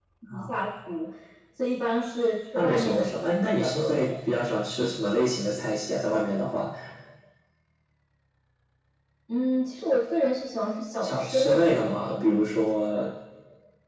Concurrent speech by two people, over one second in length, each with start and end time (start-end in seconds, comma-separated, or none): 2.5-4.1, 11.0-12.5